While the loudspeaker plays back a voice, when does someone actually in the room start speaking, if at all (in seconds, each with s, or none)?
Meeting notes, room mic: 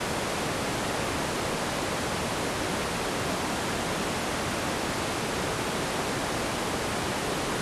none